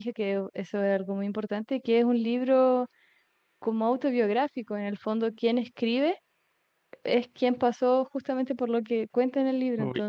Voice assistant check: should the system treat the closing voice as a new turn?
Yes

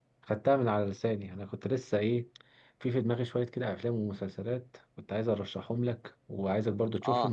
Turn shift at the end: No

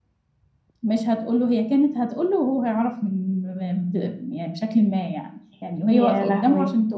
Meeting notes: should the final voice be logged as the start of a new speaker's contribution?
No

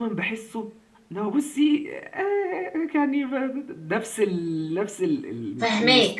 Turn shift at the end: Yes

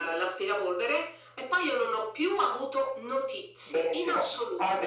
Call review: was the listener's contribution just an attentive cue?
No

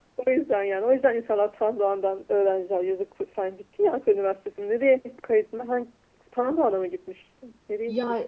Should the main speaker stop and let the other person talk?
Yes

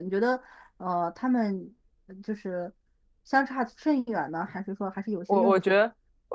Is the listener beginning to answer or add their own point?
Yes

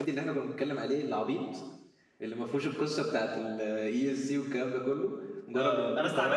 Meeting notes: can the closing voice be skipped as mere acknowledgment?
No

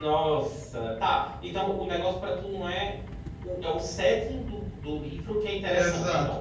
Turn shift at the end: Yes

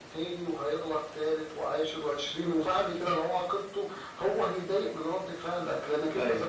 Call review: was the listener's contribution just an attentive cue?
Yes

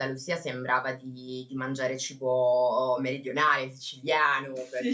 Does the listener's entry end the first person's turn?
No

